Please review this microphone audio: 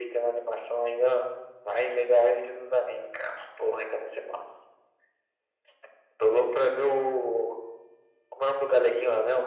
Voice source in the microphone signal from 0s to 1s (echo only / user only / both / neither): echo only